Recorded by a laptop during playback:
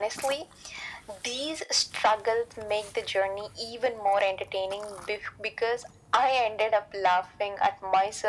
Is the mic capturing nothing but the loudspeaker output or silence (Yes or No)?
Yes